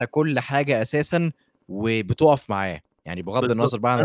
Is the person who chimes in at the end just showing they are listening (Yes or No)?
No